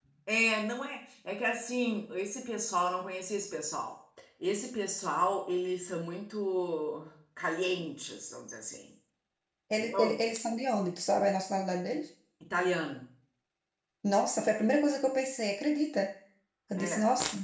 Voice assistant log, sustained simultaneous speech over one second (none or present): none